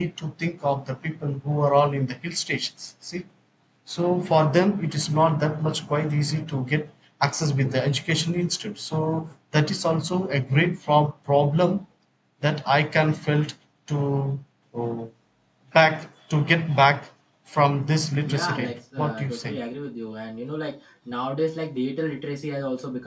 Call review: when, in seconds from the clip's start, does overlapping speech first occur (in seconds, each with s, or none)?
18.2 s